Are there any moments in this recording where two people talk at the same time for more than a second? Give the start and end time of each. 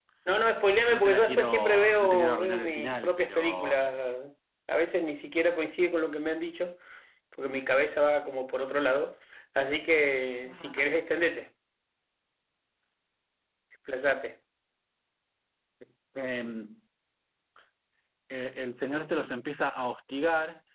0.9-3.7

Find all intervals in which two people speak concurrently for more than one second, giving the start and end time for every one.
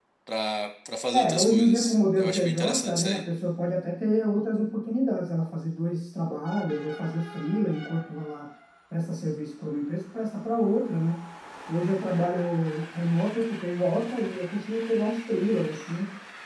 1.1-3.2

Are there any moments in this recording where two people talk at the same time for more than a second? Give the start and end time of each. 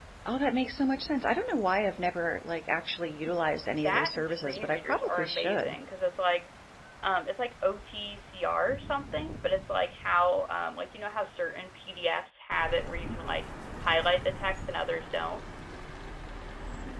3.8-5.8

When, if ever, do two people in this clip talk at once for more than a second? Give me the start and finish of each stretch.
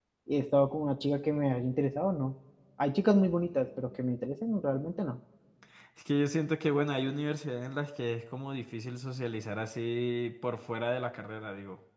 none

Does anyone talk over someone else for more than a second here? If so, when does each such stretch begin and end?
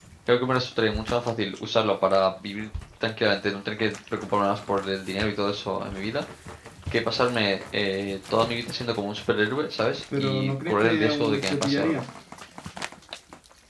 10.2-12.0

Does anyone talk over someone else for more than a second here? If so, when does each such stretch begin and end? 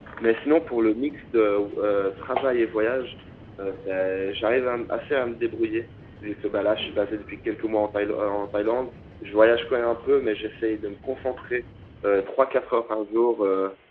none

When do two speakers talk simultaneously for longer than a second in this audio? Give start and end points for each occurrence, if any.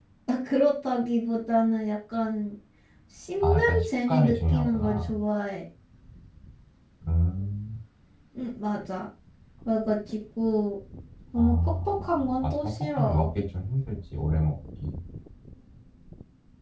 3.4-5.2, 11.4-13.3

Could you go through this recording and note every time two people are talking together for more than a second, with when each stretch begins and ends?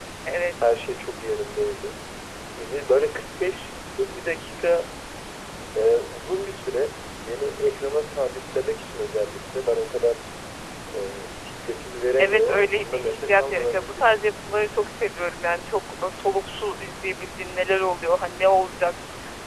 12.2-14.2

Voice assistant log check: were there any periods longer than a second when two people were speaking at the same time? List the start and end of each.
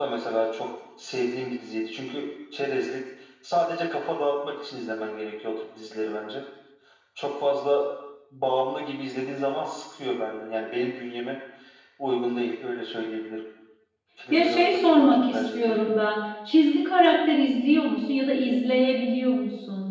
14.3-15.7

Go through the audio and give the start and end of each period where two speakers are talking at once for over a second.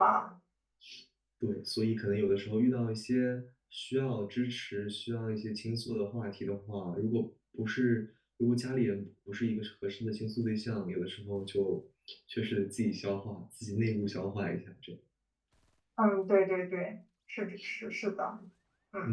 none

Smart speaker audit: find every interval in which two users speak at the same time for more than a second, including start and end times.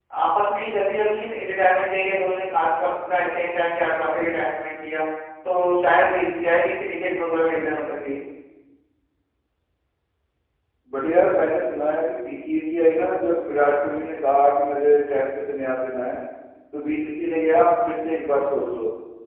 none

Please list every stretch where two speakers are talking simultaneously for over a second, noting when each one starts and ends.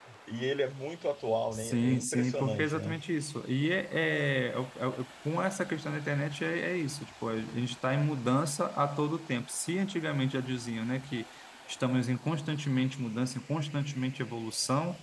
1.5-3.0

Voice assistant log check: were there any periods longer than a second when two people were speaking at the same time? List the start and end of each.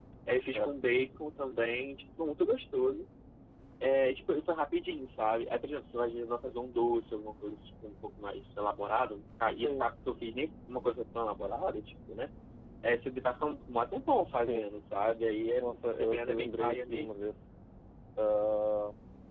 15.6-17.2

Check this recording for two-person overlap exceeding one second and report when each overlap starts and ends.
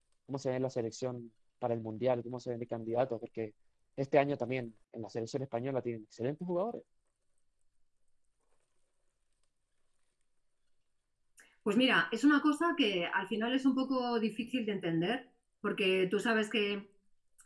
none

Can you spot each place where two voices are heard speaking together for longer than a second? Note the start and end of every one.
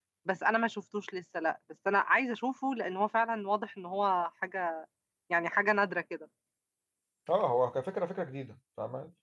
none

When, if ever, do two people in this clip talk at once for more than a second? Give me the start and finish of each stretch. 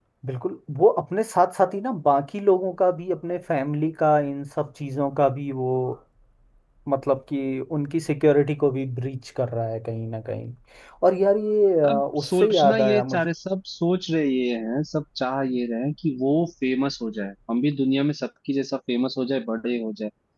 11.9-13.3

